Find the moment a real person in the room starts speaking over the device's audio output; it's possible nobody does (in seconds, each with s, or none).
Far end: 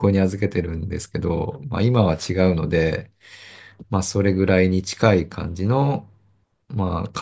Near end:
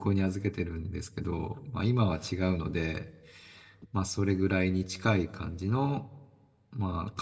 none